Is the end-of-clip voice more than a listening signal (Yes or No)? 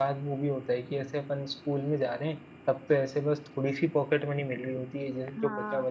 No